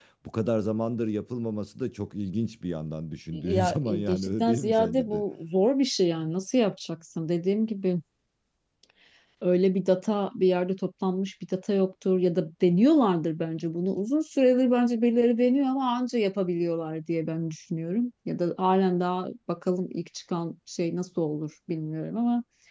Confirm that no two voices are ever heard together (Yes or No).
No